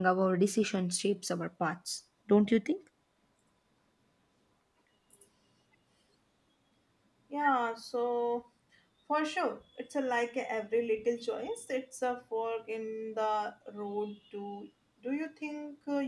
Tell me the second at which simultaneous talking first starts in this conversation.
none

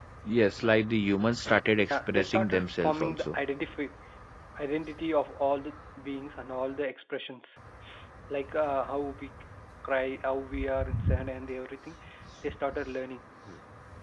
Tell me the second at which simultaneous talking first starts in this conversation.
1.9 s

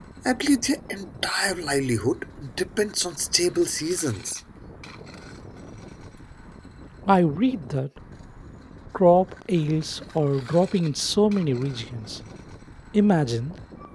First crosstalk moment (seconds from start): none

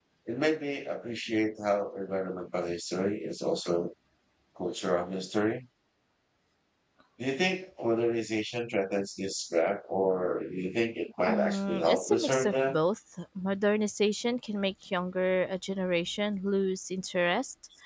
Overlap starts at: 11.3 s

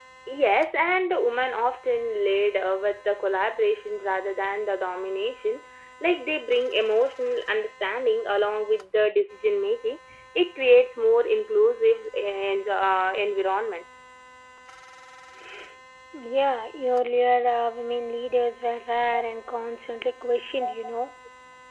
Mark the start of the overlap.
none

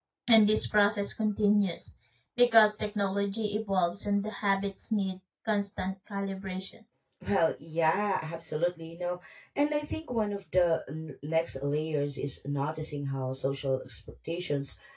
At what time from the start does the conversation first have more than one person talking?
none

